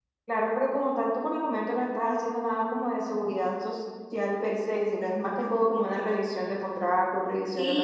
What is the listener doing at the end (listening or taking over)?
taking over